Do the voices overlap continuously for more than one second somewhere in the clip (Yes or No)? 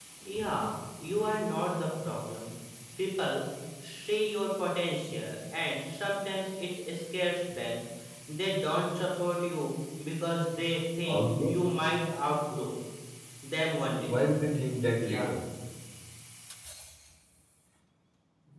No